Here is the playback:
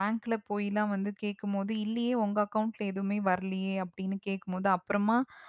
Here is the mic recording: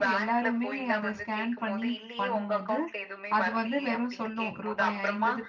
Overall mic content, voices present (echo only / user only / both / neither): both